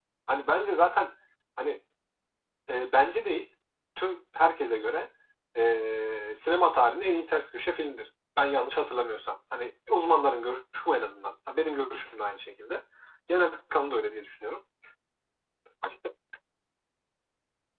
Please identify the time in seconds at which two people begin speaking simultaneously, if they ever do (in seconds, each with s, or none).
none